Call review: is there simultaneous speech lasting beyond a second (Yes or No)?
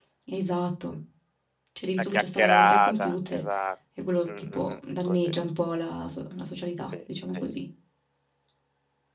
Yes